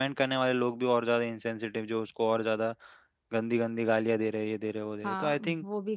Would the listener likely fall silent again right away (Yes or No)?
No